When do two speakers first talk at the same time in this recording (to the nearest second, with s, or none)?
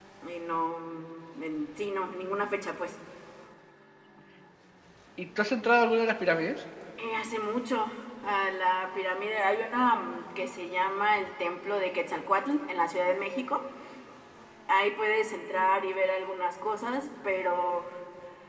none